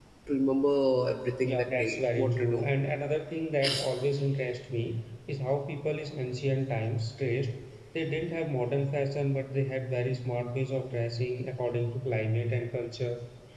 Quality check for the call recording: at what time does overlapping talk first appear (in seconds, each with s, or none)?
1.4 s